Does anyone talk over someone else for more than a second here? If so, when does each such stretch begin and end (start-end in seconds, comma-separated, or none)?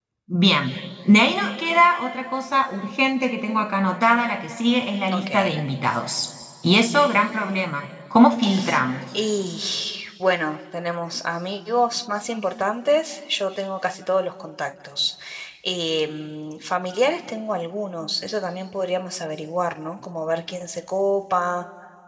none